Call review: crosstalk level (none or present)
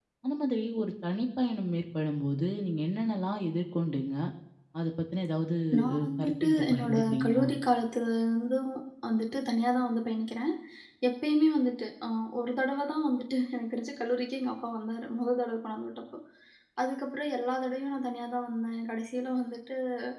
present